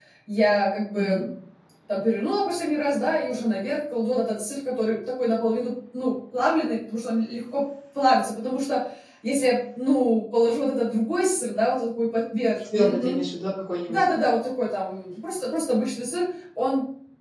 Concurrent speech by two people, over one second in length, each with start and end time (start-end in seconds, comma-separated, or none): none